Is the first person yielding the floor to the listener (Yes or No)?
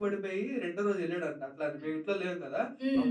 No